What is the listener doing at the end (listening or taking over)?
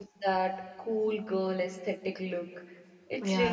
listening